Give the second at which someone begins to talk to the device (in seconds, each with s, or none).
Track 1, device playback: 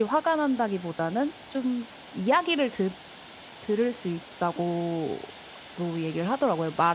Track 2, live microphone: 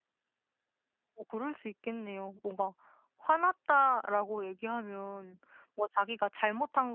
1.1 s